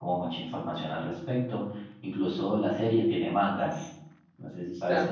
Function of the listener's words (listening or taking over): taking over